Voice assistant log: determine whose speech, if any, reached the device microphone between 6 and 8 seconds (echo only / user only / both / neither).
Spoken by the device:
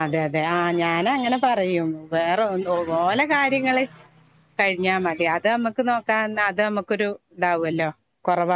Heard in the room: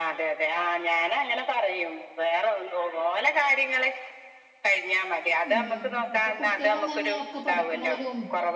both